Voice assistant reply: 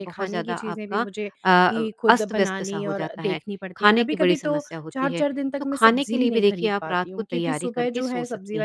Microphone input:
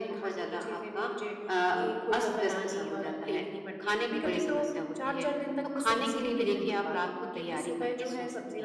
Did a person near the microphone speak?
No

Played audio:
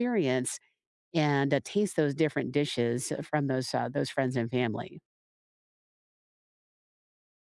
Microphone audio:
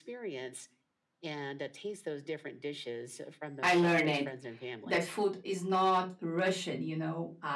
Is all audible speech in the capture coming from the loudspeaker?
No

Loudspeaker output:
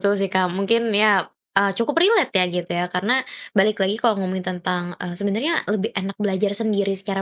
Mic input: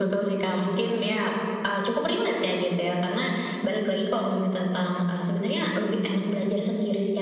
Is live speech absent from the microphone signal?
Yes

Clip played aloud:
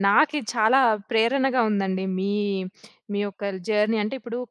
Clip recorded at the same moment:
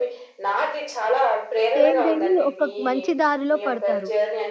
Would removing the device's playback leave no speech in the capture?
No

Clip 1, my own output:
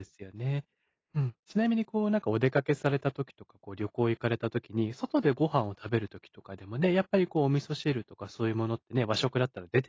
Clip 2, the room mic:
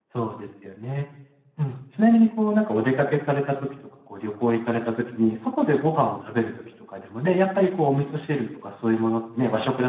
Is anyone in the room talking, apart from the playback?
No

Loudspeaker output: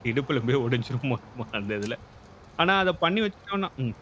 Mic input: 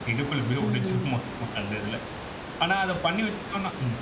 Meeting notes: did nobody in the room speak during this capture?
No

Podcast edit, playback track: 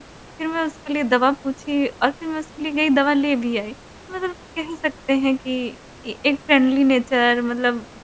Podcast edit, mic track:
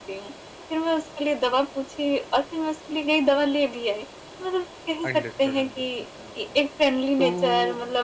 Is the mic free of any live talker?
No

